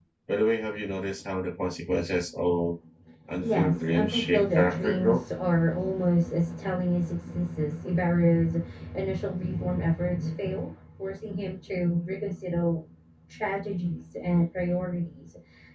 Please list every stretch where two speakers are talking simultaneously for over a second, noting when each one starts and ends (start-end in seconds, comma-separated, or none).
3.4-5.2